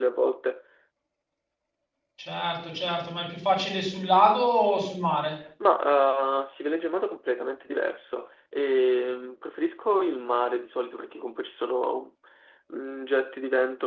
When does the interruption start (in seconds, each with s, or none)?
none